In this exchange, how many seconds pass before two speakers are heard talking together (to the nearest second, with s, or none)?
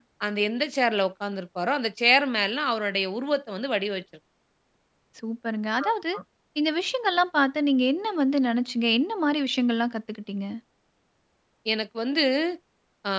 none